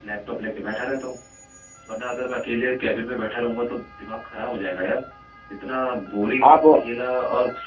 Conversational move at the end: listening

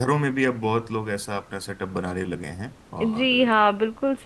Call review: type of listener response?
taking over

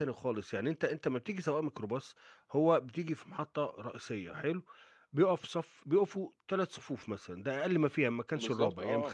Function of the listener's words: listening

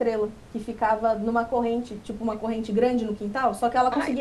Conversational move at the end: listening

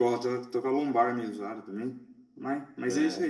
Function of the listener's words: listening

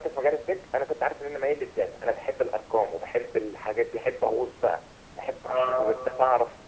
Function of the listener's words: listening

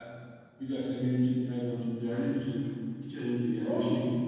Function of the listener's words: listening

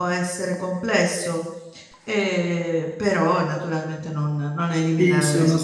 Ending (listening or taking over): taking over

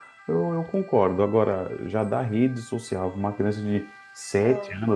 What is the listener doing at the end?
listening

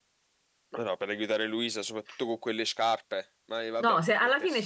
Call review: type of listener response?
taking over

